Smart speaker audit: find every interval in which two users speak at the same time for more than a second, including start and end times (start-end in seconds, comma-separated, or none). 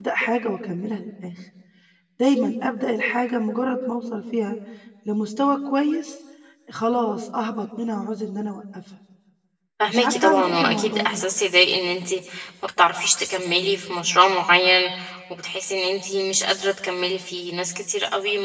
9.9-11.2